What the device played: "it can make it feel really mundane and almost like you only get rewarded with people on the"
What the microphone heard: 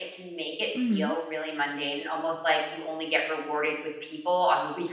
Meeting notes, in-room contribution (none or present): present